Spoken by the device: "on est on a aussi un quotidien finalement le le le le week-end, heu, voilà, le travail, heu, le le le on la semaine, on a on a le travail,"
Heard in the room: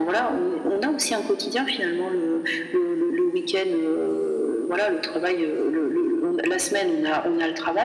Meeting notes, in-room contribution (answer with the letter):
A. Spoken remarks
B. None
B